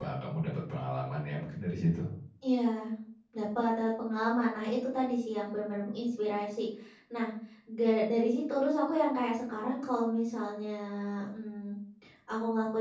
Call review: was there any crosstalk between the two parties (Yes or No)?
No